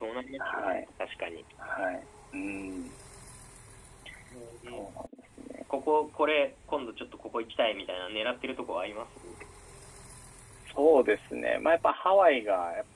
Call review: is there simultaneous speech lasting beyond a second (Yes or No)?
No